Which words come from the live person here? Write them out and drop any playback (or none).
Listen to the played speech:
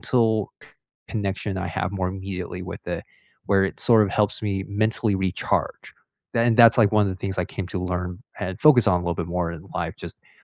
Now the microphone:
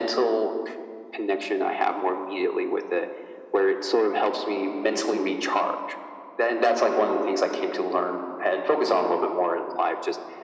none